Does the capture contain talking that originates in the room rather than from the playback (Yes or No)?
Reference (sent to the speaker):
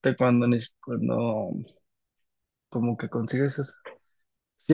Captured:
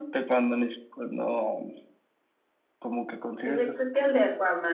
Yes